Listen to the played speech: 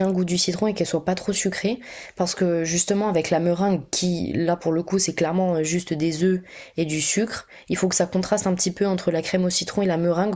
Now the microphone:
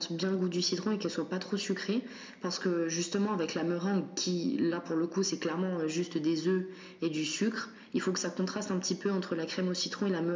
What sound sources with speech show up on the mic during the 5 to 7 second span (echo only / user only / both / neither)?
echo only